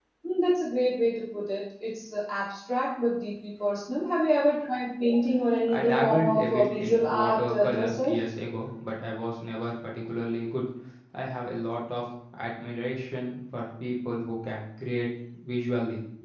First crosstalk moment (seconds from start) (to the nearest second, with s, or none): 6 s